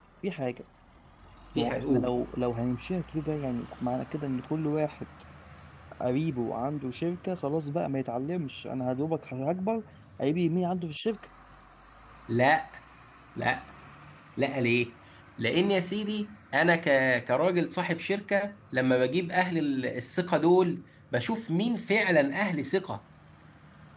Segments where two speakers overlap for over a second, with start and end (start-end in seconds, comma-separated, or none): none